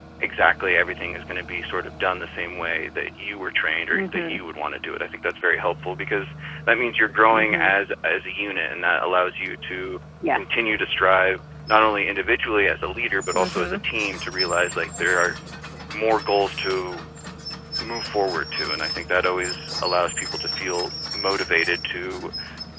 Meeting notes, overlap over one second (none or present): none